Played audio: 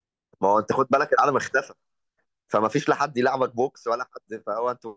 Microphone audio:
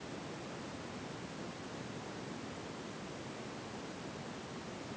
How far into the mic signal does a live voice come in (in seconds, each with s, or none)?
none